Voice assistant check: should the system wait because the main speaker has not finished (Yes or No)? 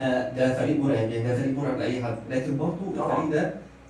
Yes